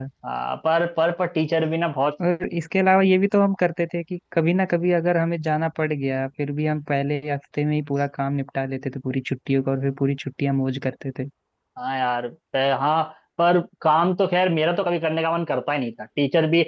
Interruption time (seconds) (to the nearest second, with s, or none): none